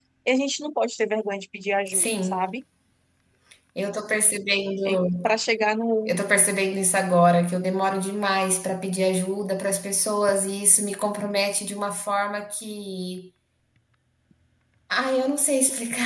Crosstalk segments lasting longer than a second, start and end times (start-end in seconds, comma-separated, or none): none